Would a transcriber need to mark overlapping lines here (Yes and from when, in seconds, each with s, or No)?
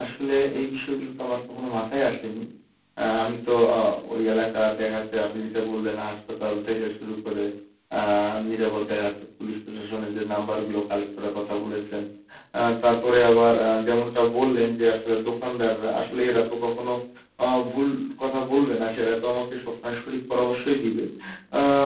No